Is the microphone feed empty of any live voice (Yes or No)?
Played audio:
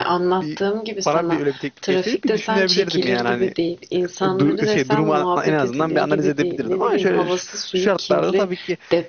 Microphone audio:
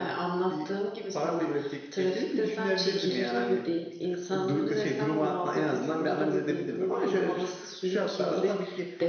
Yes